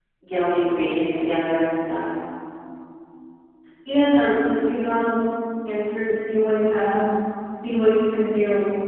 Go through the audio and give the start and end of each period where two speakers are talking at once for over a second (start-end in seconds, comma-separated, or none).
none